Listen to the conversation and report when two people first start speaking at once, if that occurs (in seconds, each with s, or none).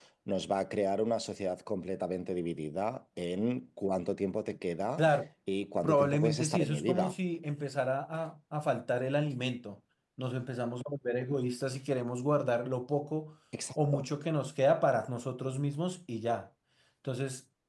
5.8 s